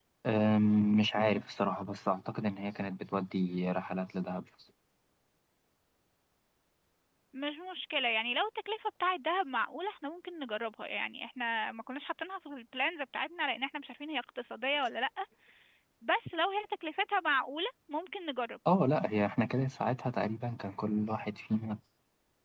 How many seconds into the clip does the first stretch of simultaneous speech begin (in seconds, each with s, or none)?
none